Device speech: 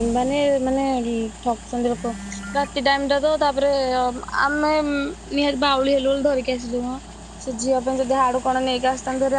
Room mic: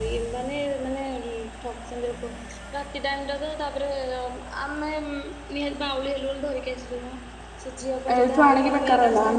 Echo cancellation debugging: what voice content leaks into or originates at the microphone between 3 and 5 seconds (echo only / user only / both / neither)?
echo only